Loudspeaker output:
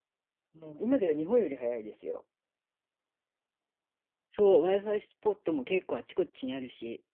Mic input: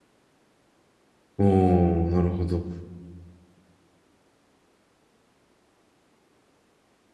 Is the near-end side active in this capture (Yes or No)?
Yes